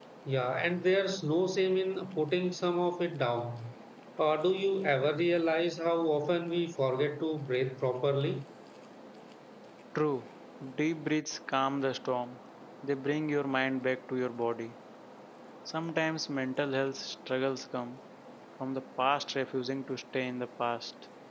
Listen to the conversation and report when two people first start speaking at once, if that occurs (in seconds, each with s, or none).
none